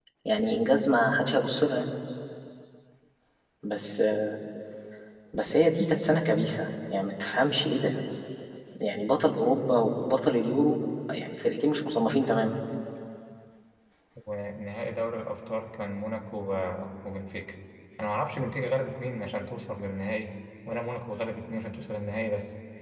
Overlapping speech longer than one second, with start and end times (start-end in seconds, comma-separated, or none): none